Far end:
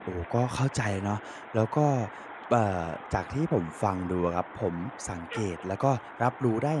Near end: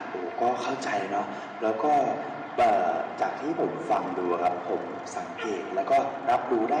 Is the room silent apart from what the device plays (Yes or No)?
Yes